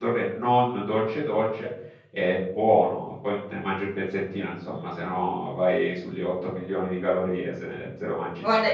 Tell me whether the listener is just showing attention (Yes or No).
No